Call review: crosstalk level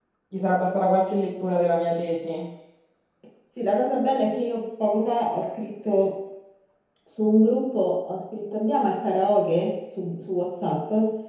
none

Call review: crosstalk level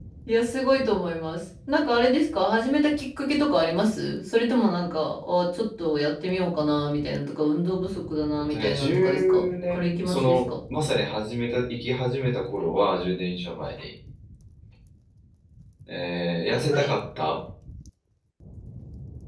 present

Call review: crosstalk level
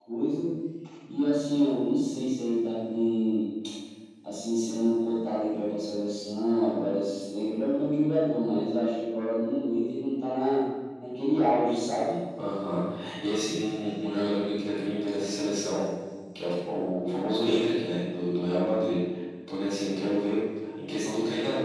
none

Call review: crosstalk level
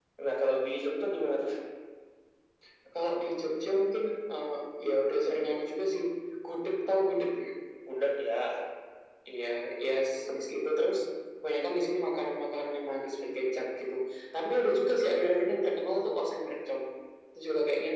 none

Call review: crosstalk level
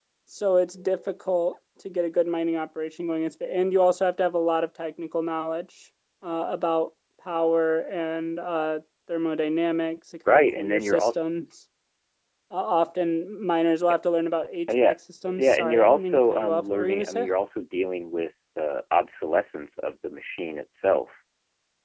present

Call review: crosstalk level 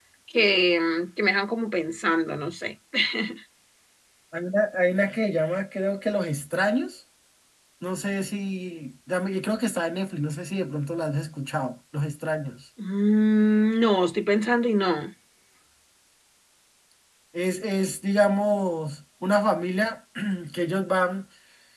none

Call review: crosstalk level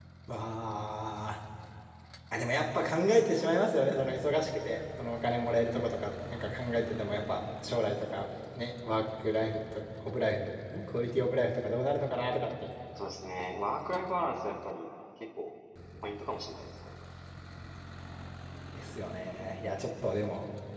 none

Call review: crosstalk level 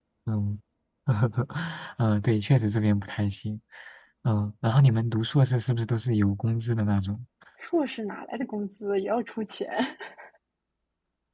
none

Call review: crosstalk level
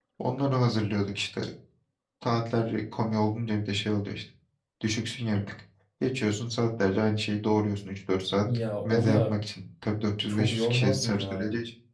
present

